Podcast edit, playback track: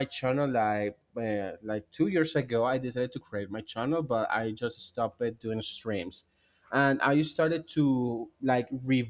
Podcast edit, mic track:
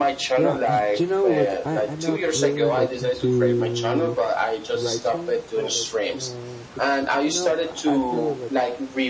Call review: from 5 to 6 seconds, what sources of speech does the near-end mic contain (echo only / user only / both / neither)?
both